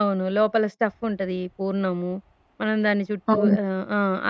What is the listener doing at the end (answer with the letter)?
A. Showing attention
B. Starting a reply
A